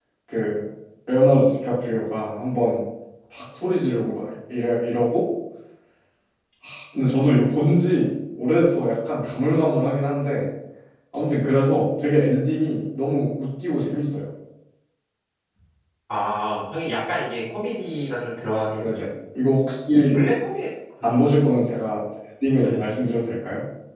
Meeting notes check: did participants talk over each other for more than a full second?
No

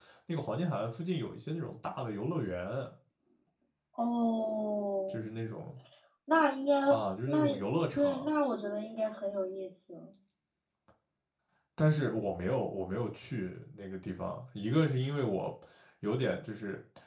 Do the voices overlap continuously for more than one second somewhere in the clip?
No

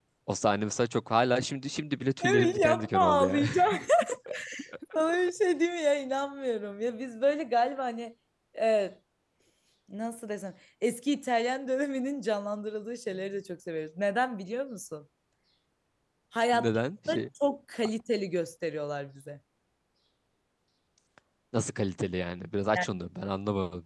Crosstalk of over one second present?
Yes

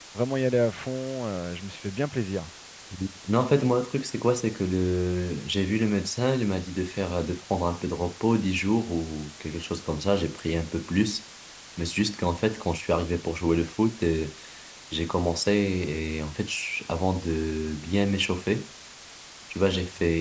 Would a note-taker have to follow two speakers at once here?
No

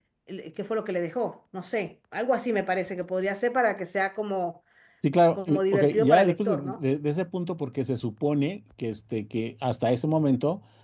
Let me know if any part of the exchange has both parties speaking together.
Yes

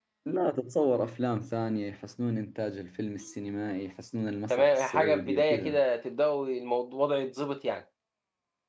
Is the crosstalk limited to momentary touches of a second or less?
No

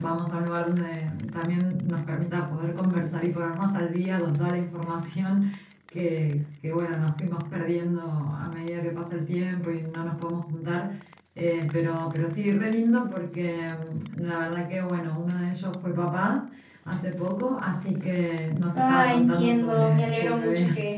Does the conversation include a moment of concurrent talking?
Yes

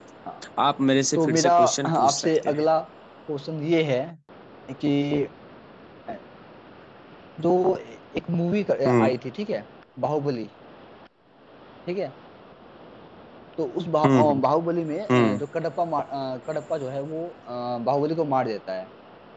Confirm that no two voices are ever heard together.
No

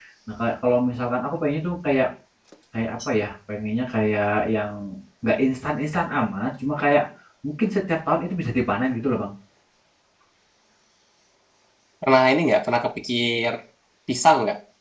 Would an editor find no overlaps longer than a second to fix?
Yes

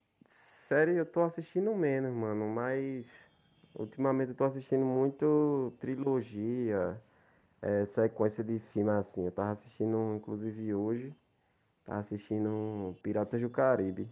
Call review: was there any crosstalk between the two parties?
No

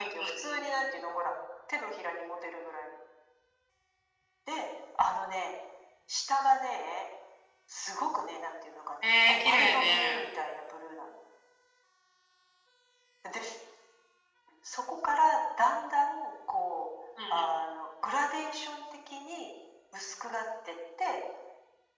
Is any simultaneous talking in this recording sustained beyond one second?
Yes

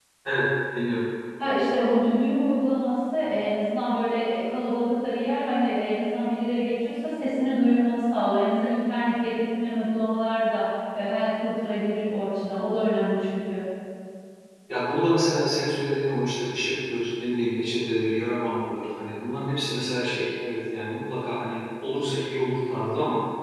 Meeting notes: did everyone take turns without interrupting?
Yes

